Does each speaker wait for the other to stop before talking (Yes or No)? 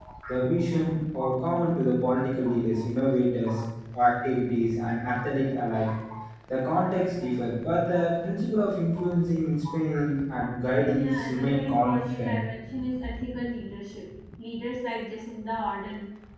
No